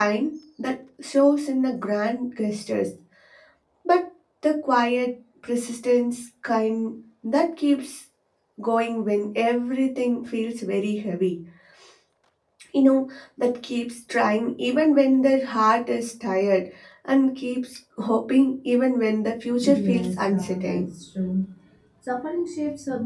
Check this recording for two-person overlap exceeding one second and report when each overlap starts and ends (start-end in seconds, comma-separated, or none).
19.6-20.9